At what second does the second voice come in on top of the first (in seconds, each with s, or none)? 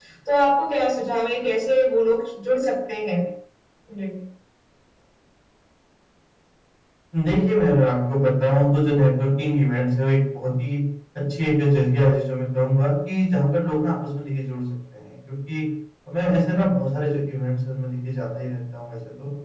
none